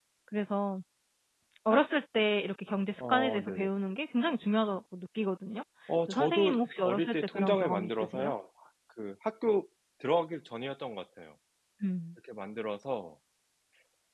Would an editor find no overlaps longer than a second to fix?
No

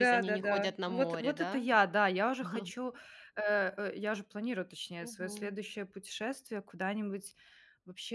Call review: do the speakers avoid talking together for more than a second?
No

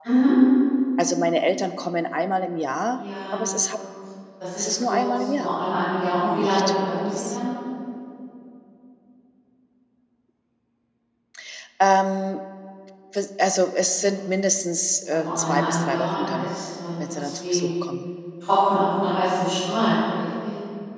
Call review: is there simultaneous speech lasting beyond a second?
Yes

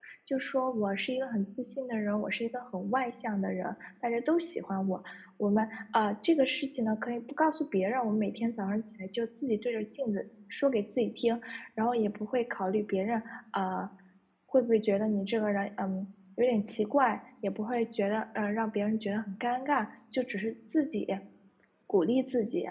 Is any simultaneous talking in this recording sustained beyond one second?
No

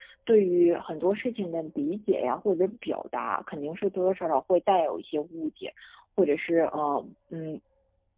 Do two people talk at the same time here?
No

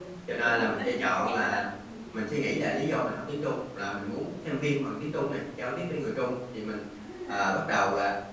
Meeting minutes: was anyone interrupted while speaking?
Yes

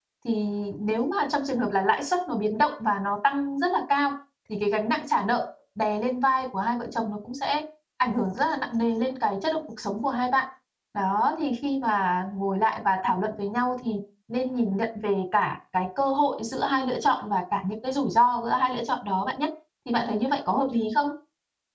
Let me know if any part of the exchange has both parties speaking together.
No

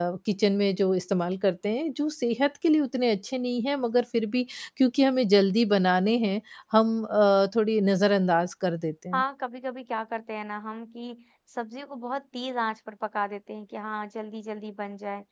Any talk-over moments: No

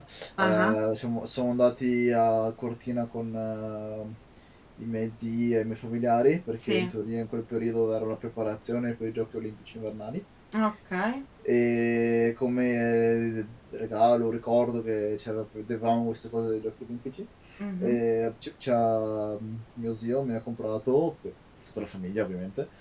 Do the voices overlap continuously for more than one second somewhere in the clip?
No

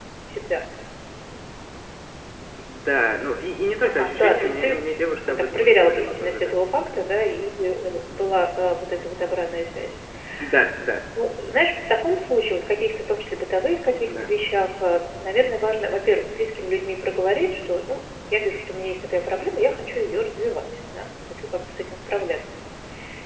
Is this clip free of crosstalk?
No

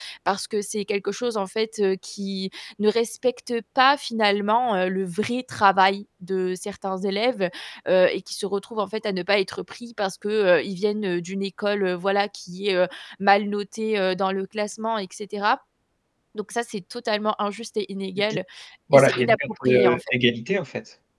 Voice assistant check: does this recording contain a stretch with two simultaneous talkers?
Yes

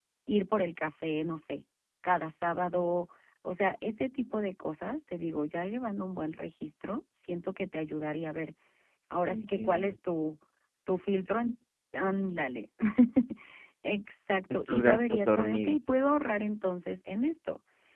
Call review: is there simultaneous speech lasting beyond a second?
Yes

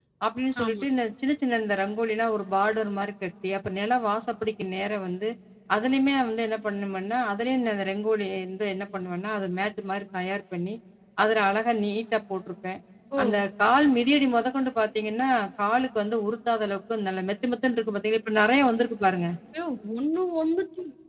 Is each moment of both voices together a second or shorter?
Yes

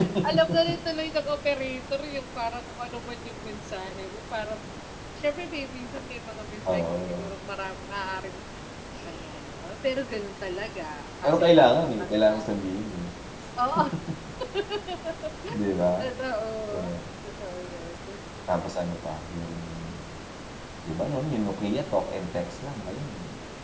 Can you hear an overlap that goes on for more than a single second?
Yes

